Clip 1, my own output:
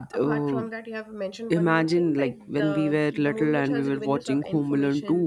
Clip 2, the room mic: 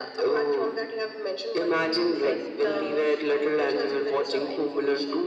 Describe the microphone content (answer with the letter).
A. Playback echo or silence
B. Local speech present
B